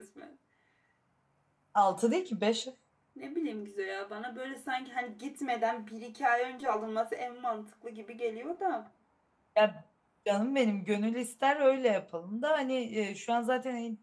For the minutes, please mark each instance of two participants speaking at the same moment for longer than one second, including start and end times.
none

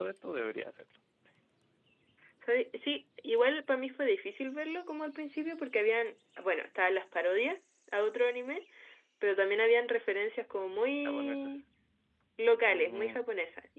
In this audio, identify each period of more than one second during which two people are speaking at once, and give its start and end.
none

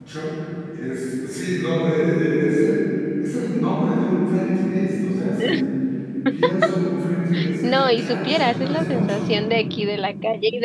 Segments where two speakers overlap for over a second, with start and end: 7.6-9.3

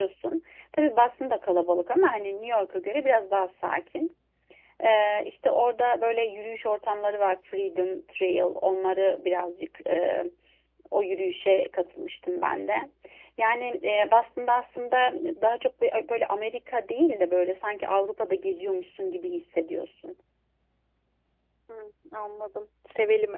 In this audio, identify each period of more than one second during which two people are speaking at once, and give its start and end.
none

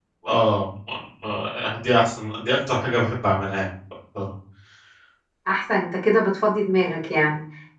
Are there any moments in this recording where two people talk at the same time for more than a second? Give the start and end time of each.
none

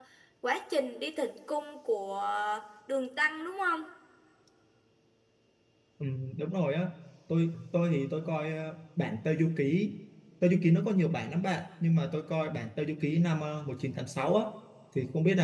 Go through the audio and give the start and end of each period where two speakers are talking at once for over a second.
none

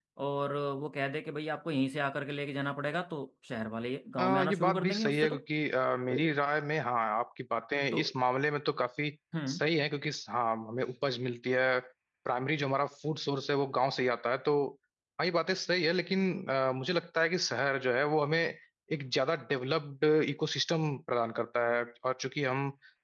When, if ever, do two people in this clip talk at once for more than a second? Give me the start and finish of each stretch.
4.2-5.4

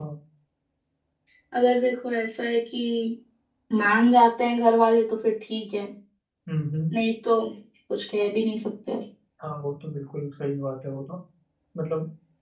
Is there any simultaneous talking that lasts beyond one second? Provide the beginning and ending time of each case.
none

